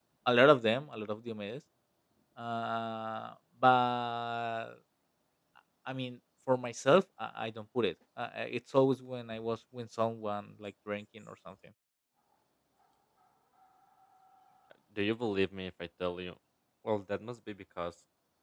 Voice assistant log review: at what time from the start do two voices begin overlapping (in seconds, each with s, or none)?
none